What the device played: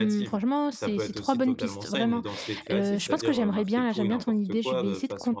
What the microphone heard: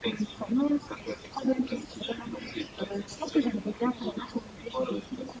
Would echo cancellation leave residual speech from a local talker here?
No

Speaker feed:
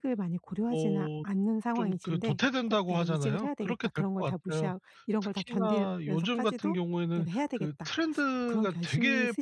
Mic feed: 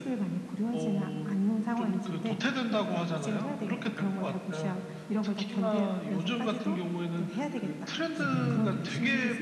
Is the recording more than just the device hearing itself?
Yes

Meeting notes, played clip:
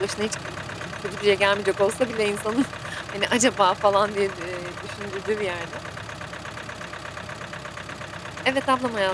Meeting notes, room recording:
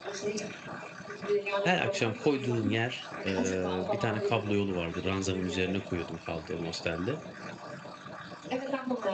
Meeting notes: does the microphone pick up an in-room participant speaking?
Yes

